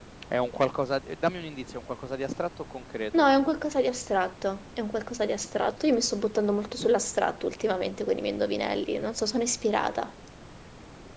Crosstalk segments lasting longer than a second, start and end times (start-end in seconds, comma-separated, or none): none